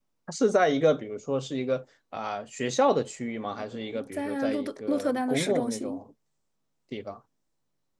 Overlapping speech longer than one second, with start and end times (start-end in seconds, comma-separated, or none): 4.1-6.0